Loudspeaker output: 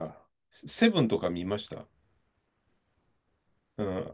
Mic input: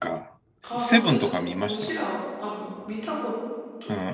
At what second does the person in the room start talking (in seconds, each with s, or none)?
0.6 s